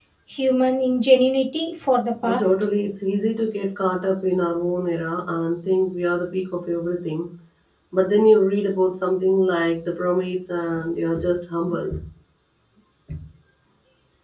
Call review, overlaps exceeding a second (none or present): none